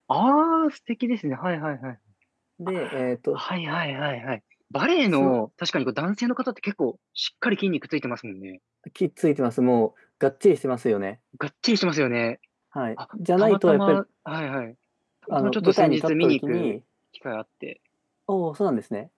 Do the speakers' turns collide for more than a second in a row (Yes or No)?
Yes